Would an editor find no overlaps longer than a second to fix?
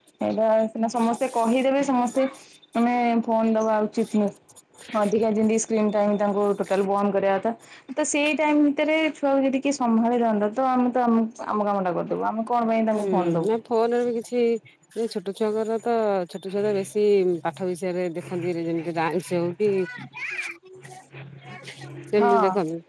Yes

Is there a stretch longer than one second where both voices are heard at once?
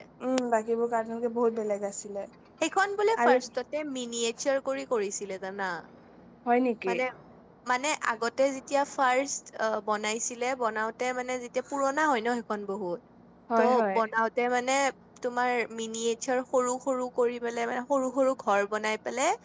No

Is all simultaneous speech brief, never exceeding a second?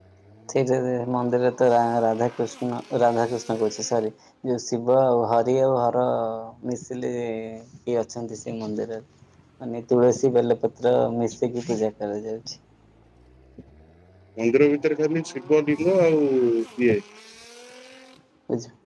Yes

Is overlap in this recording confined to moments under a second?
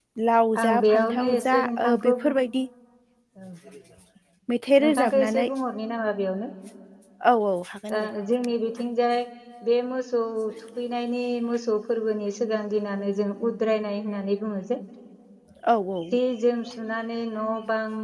No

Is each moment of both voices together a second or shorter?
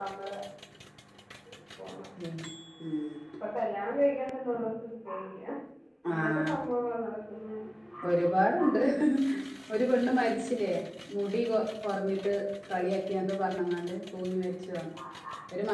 Yes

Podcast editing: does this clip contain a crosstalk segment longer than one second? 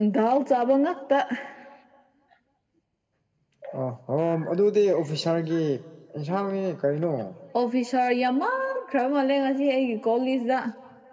No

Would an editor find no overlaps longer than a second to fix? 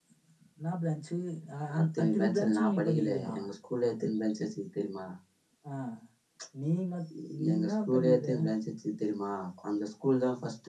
No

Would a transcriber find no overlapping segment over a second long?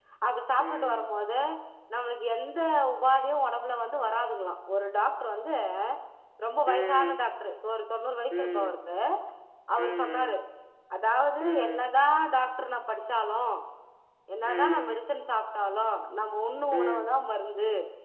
Yes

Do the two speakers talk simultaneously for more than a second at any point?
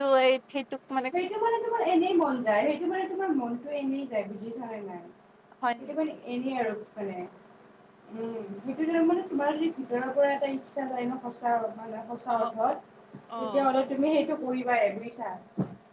No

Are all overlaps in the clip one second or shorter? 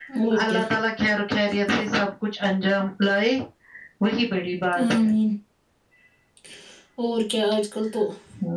Yes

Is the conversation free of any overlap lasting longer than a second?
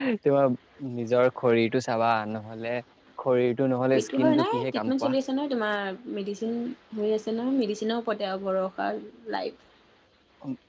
No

